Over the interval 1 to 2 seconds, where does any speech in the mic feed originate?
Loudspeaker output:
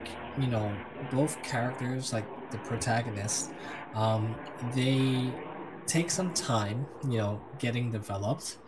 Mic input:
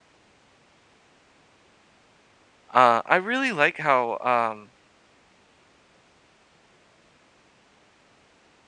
neither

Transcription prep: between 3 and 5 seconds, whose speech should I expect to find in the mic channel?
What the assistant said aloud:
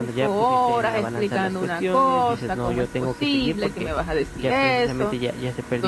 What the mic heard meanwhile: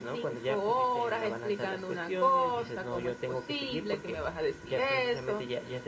echo only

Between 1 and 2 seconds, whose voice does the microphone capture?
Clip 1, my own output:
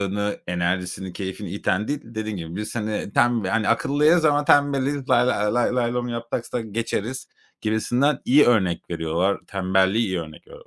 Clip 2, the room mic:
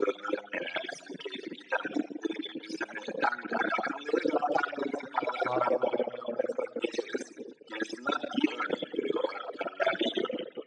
echo only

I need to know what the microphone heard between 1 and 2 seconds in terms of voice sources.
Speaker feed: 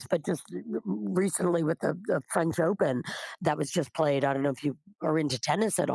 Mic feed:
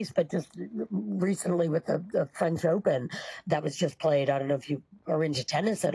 echo only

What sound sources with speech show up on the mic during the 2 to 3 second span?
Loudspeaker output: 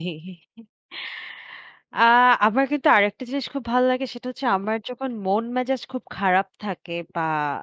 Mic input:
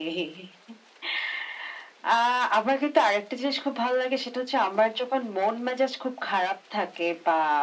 echo only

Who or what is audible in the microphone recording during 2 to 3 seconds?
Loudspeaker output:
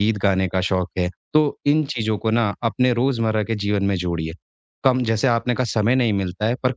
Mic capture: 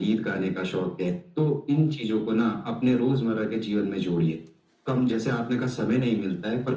echo only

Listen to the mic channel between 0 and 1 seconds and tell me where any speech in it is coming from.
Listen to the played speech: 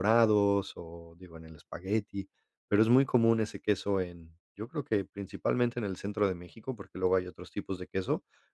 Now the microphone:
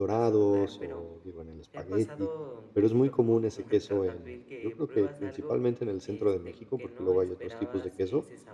both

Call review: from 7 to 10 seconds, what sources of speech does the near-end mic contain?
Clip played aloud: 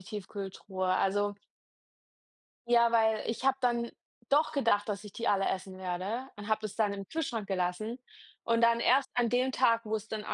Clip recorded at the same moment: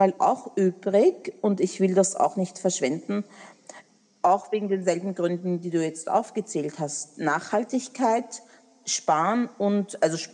user only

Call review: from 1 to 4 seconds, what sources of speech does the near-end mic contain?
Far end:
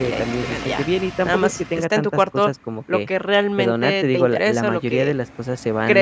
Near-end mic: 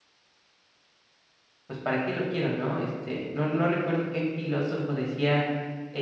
user only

